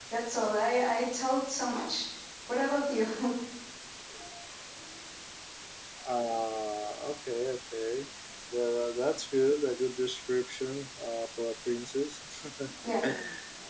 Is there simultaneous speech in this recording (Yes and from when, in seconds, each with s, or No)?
No